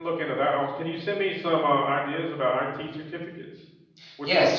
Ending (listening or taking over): taking over